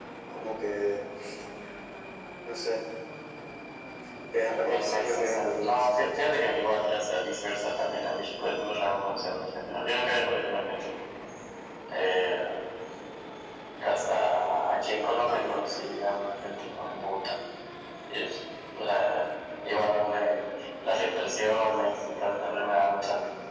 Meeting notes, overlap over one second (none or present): present